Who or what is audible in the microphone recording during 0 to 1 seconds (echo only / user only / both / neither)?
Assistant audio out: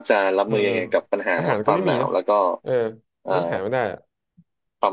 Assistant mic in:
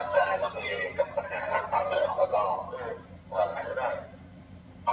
echo only